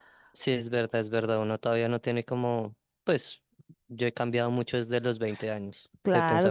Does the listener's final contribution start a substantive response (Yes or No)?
Yes